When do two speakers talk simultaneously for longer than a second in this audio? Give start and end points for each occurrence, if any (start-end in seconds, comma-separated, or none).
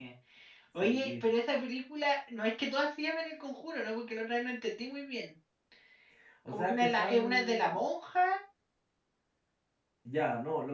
6.5-7.8